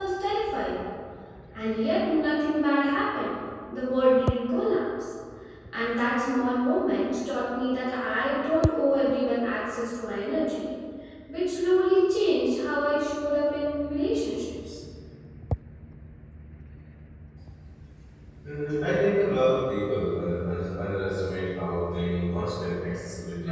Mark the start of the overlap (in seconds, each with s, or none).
none